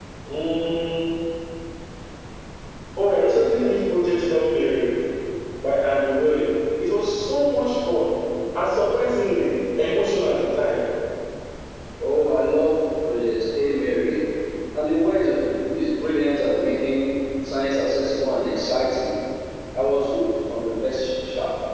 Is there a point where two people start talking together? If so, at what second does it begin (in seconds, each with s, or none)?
none